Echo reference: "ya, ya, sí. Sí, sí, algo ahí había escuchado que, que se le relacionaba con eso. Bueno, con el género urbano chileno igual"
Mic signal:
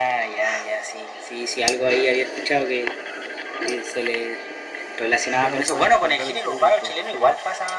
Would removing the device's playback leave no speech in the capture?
No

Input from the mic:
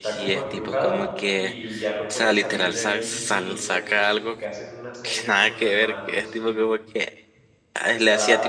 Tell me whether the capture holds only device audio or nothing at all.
No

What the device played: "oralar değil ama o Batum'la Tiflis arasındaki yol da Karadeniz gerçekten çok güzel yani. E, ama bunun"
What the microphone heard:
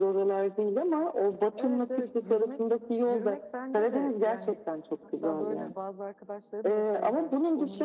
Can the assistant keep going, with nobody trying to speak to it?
No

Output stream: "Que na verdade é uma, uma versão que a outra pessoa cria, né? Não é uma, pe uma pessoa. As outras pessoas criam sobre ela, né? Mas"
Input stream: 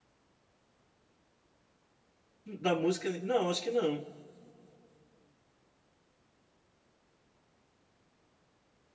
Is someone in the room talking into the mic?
Yes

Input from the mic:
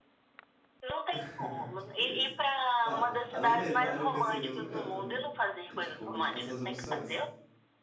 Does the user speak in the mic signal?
Yes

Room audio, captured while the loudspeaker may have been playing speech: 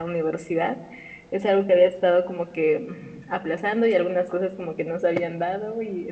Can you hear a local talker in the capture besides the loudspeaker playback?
Yes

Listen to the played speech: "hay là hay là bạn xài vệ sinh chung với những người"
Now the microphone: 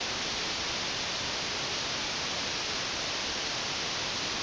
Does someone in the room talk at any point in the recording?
No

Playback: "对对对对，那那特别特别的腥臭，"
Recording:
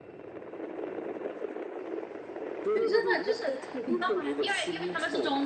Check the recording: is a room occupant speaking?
Yes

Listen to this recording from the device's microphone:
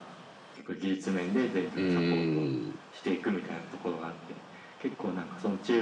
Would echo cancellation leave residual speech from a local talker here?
Yes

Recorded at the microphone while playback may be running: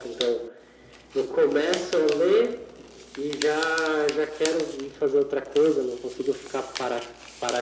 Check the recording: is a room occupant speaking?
No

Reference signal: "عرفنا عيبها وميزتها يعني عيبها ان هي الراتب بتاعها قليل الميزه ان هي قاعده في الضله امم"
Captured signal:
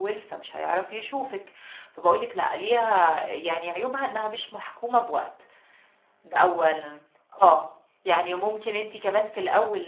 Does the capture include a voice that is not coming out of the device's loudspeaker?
Yes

